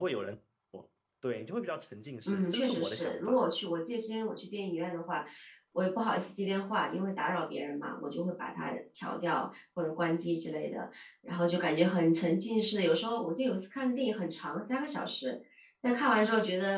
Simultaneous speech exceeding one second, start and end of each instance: 2.2-3.5

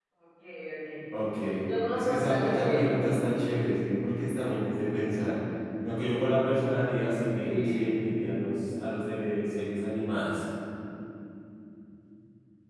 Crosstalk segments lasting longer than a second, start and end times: 1.9-3.3

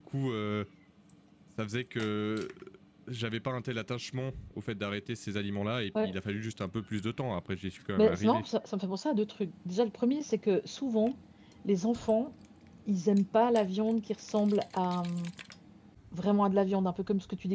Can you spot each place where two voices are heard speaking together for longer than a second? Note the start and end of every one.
none

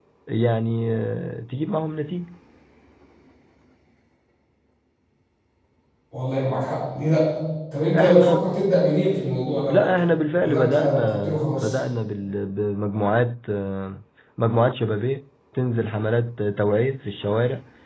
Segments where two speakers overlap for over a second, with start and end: 10.4-11.8

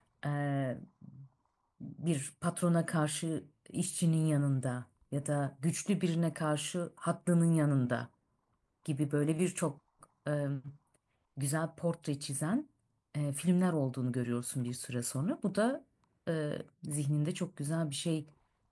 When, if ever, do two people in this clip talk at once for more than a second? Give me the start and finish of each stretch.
none

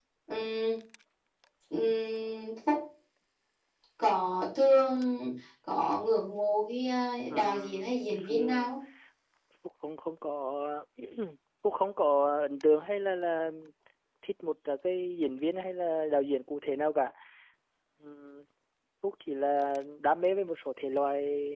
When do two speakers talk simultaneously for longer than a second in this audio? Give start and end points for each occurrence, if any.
7.3-8.7

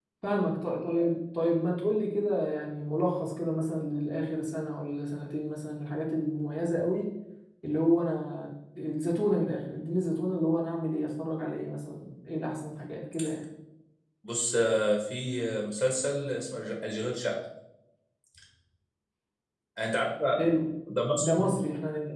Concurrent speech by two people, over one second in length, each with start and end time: none

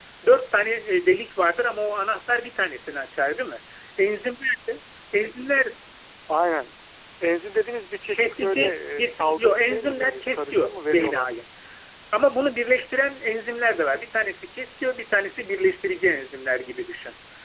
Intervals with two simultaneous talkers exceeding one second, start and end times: 8.2-11.3

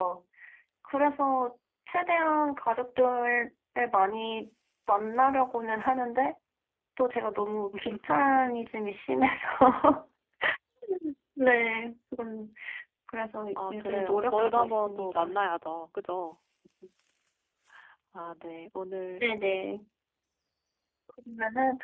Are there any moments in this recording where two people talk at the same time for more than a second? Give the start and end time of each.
13.7-15.4

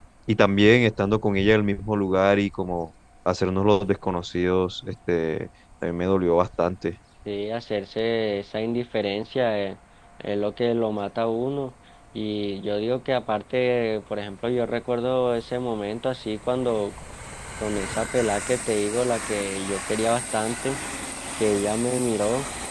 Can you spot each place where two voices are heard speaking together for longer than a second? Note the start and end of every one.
none

